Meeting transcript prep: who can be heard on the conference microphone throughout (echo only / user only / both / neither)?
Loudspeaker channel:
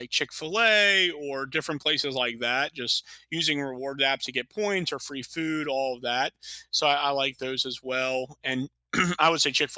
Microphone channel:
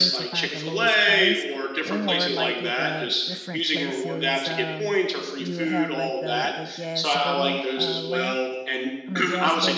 both